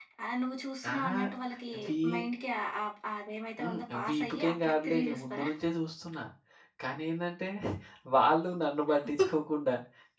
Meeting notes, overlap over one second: present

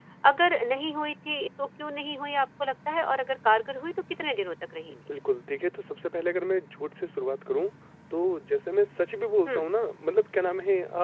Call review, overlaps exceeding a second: none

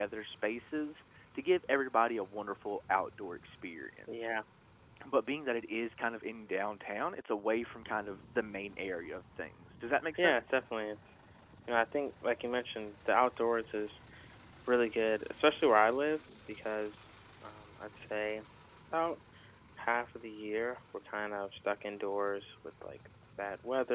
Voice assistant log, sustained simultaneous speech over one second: none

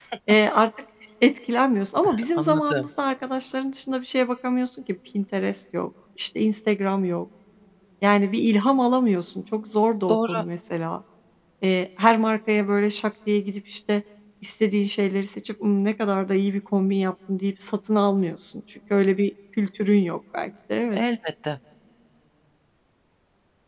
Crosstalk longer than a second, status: none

